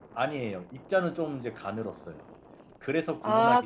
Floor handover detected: Yes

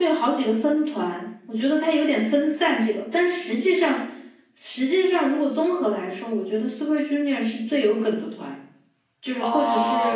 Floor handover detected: Yes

